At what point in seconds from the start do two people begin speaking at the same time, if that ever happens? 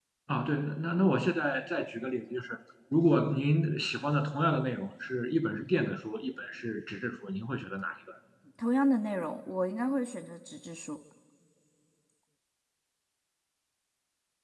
none

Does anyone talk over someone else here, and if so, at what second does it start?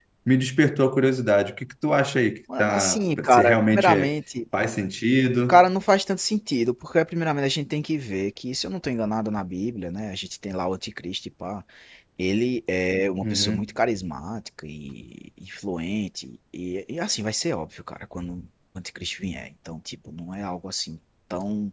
2.6 s

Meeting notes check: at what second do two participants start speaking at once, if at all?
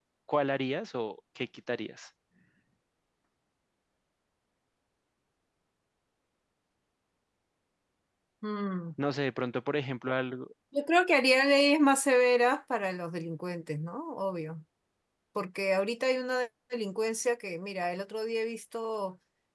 none

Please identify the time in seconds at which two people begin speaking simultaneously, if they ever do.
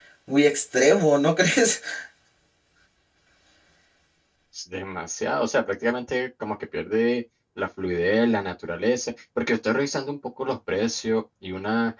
none

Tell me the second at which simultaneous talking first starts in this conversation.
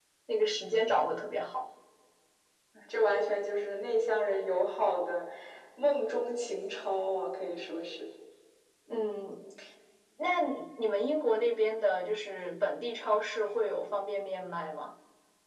none

